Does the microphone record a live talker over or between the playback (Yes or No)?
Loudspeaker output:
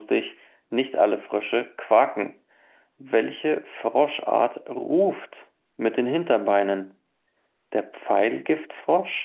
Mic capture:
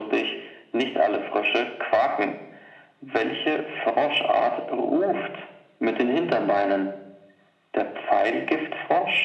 No